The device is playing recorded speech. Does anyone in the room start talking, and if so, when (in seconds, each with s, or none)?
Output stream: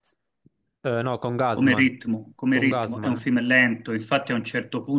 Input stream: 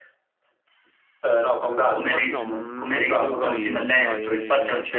2.3 s